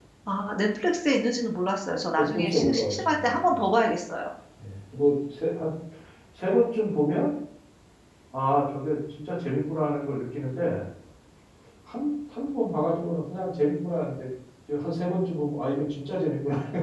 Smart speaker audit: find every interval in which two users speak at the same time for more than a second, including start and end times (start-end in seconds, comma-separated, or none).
2.2-3.7